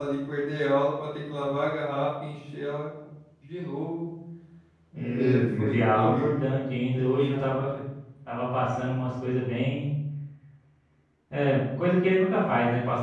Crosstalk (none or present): present